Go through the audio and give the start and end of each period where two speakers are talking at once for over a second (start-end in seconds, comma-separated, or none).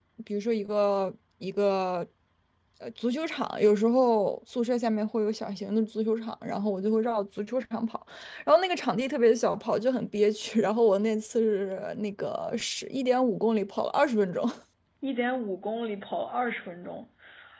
none